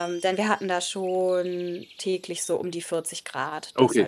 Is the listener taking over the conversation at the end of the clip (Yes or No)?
Yes